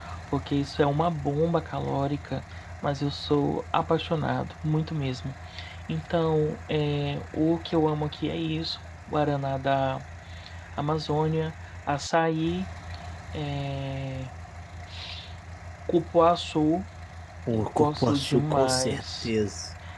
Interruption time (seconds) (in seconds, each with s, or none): 17.5 s